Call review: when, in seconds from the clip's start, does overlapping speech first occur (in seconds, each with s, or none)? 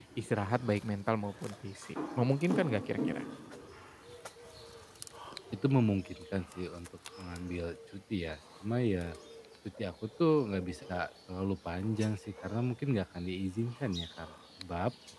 none